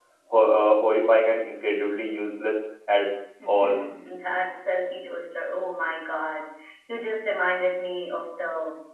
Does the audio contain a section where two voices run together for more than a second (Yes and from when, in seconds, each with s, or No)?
No